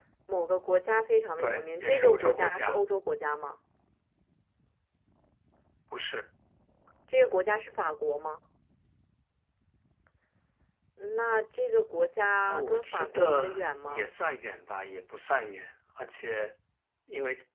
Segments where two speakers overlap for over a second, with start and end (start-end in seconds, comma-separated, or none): 1.4-2.8, 12.5-14.0